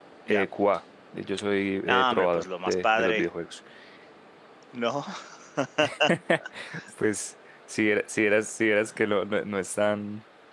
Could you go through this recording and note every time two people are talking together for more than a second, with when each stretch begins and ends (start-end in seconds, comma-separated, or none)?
1.8-3.2